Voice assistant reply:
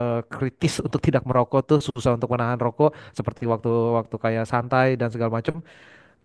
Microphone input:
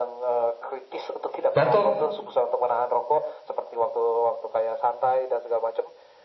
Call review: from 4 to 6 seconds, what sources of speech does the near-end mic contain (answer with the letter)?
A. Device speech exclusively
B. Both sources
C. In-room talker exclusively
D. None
A